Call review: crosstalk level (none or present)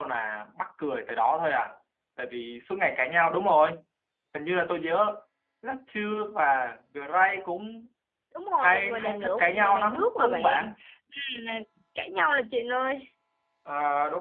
present